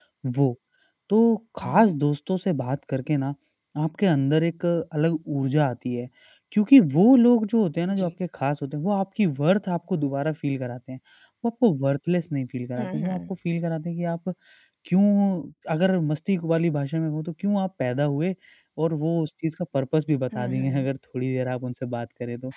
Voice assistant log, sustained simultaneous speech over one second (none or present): none